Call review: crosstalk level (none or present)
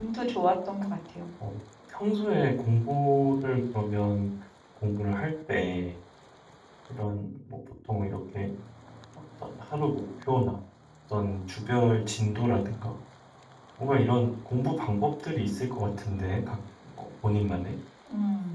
none